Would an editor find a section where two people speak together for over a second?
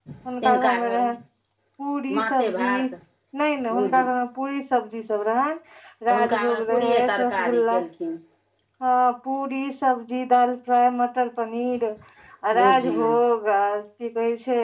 Yes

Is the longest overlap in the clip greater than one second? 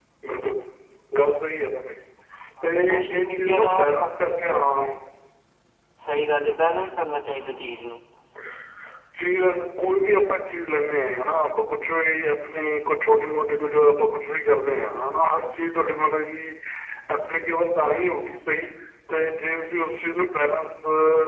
Yes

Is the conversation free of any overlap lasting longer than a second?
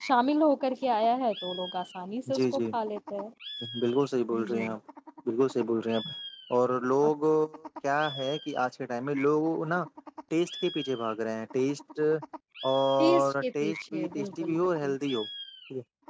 No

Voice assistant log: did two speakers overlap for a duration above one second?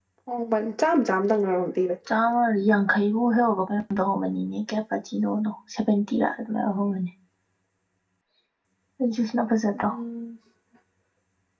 No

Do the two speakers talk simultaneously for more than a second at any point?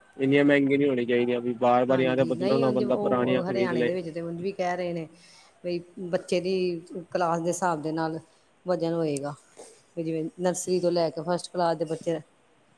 Yes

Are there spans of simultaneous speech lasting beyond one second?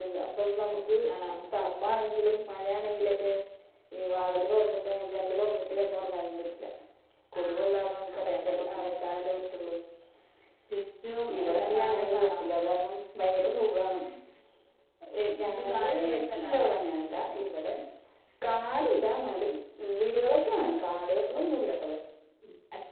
Yes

